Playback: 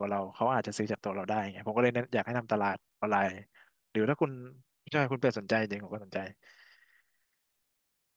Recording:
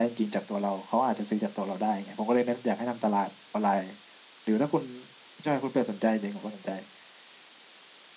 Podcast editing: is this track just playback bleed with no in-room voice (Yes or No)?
Yes